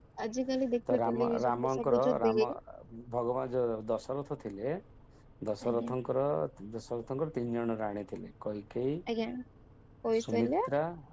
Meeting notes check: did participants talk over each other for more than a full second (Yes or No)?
Yes